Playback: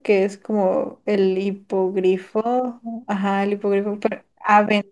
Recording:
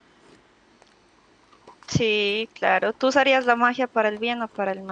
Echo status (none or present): none